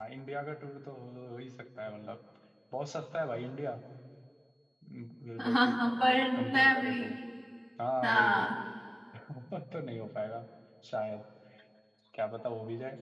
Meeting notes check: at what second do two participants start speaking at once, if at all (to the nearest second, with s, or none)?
5 s